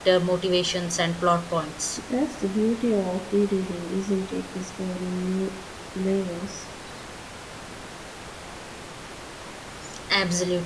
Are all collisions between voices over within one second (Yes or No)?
Yes